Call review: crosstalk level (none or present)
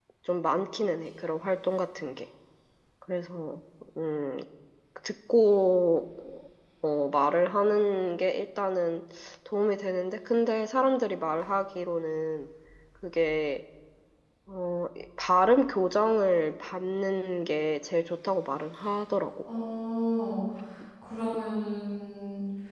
none